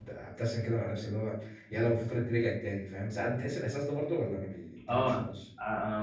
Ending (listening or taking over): taking over